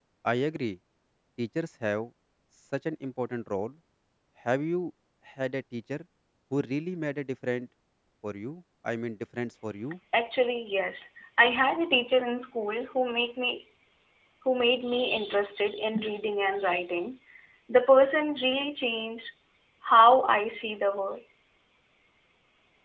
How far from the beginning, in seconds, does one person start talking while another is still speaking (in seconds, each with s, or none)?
none